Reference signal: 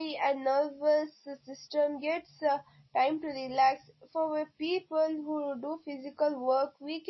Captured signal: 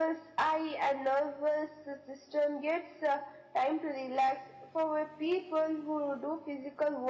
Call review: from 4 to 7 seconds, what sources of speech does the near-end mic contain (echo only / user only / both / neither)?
echo only